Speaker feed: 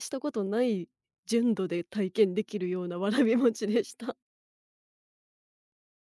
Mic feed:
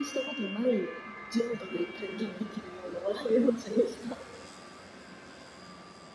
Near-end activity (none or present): none